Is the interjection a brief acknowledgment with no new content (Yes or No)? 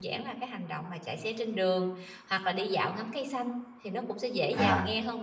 Yes